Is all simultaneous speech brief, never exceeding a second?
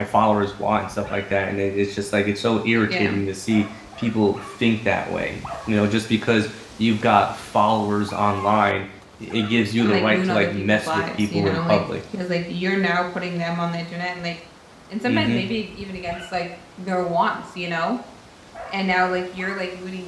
No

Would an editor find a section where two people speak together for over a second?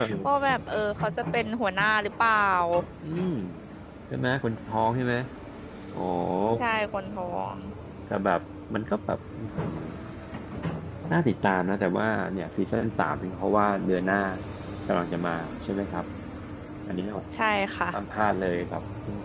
No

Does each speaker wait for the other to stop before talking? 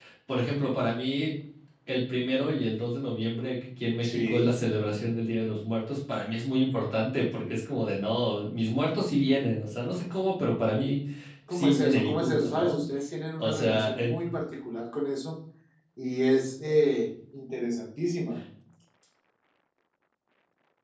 No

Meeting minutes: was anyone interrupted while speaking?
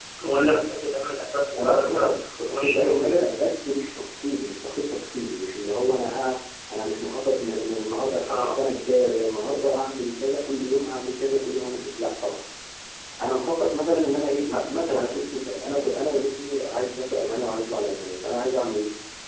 Yes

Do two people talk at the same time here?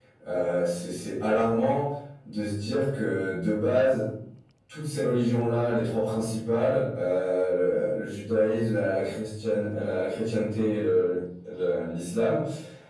No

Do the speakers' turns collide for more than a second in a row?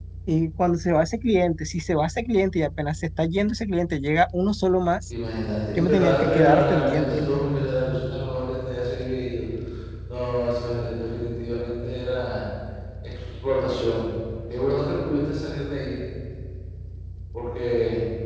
Yes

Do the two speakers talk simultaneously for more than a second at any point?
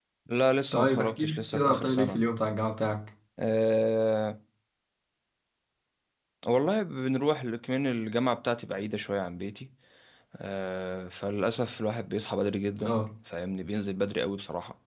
Yes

